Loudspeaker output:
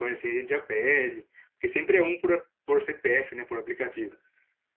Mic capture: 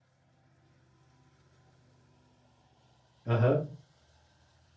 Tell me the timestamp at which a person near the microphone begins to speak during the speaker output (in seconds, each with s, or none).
3.2 s